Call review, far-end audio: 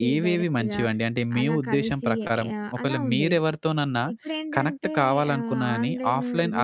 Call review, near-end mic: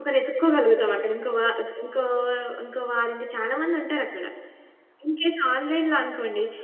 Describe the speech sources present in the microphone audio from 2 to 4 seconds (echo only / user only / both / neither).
user only